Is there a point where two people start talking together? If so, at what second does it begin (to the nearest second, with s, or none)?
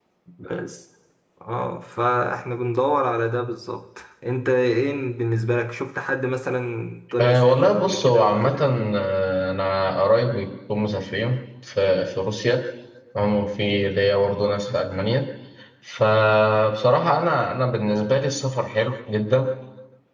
7 s